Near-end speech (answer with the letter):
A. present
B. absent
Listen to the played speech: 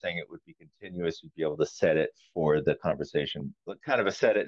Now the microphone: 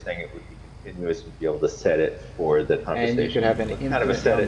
A